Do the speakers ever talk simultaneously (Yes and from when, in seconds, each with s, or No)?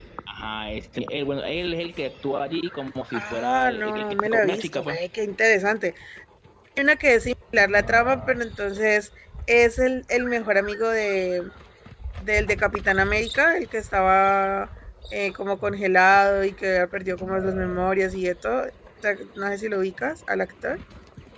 Yes, from 3.1 s